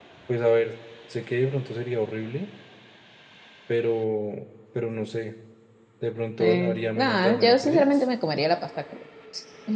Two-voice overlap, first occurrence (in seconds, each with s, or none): 6.4 s